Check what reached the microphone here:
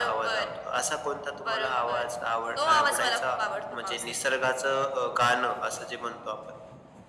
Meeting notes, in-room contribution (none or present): none